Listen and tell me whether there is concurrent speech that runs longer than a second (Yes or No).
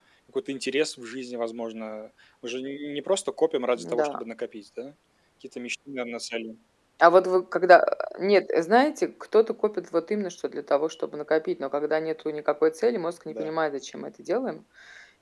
No